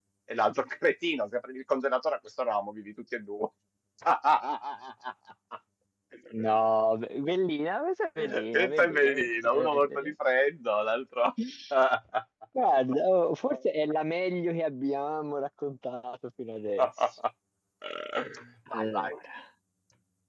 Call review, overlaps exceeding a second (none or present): present